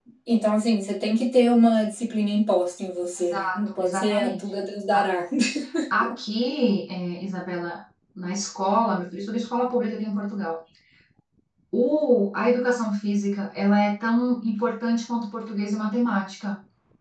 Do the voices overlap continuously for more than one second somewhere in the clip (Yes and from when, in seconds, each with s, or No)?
Yes, from 3.2 s